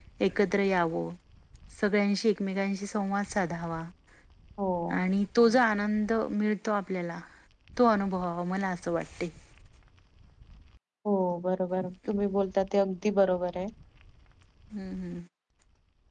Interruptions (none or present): none